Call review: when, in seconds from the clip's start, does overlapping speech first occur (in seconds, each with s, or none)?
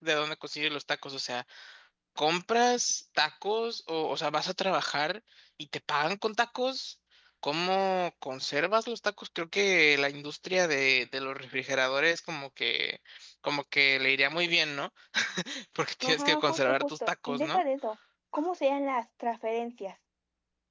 16.0 s